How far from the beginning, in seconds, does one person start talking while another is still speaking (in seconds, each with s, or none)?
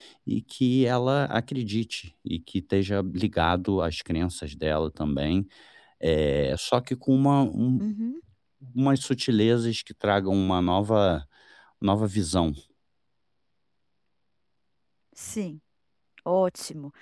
none